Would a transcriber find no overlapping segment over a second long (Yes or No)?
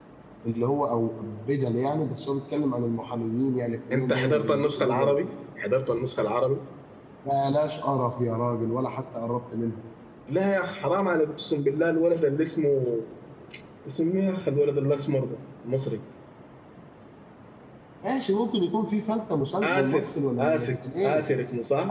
No